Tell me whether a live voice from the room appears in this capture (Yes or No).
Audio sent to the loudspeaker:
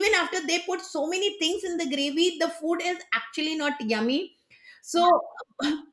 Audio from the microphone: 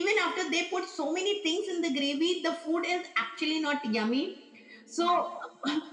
No